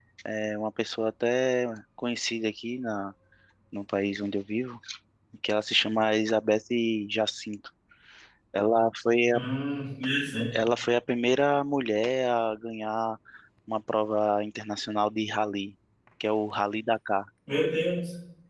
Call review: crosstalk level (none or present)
none